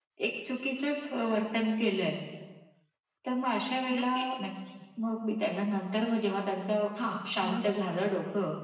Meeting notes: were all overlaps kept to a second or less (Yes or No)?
Yes